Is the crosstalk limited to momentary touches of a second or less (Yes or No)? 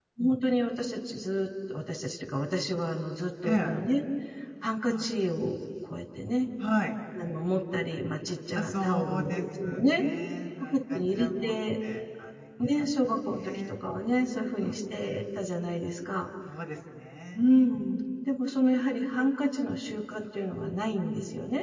No